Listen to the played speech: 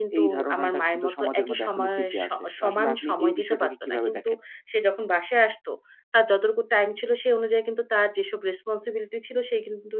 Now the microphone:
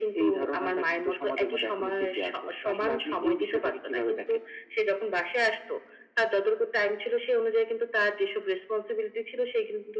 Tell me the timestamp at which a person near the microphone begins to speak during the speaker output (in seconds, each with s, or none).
none